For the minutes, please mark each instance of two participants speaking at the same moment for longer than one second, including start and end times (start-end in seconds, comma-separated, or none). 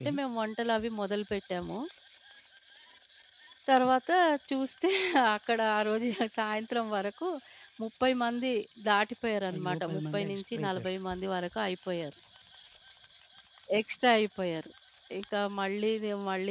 9.5-10.9